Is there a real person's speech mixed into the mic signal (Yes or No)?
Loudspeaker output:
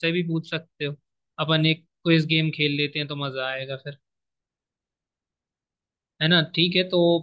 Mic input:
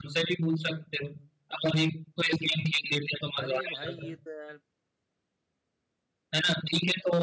Yes